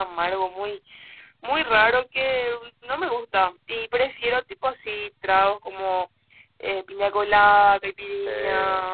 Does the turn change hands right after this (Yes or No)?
No